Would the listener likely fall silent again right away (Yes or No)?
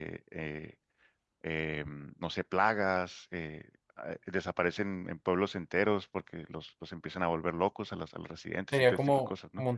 No